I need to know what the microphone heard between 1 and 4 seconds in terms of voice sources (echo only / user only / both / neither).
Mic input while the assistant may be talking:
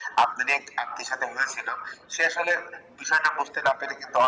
echo only